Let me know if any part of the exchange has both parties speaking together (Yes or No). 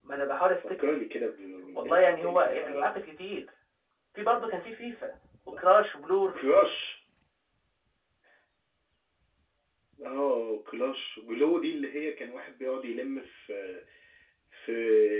Yes